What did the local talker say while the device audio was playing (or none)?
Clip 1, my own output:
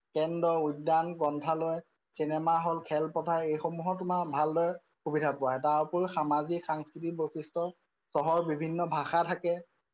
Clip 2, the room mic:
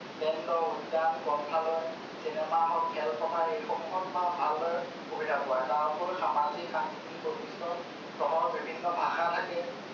none